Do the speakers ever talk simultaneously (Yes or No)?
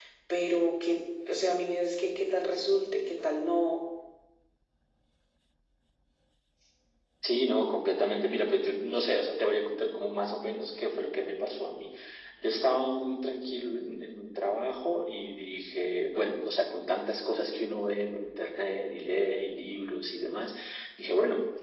No